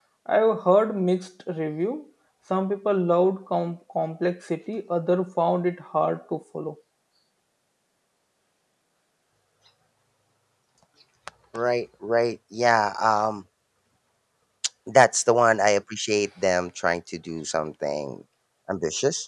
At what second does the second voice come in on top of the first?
none

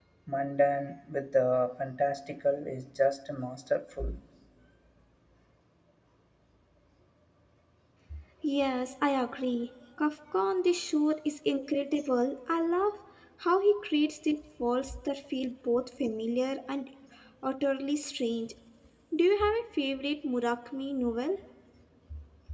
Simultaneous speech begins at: none

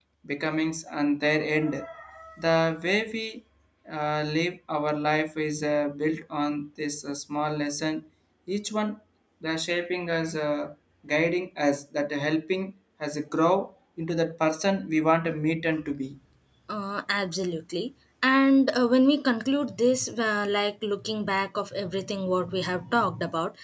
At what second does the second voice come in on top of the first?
none

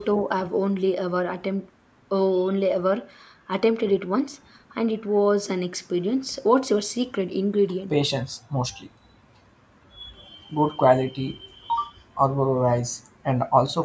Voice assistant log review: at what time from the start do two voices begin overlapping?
none

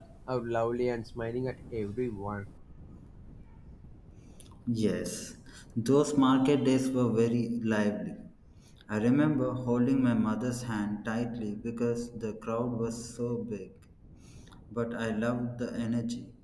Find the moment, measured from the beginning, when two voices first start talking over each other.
none

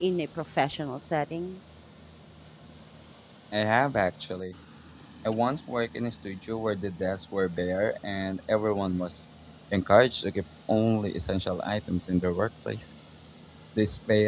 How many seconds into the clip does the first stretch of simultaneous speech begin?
none

